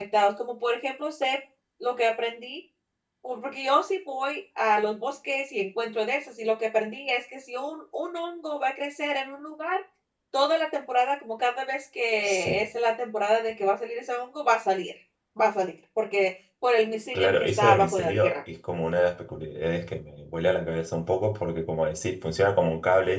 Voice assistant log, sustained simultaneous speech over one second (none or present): present